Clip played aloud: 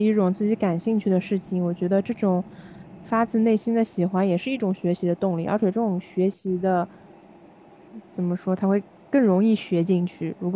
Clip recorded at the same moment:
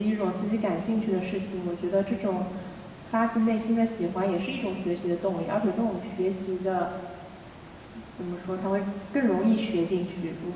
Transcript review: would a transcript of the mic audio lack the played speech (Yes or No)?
No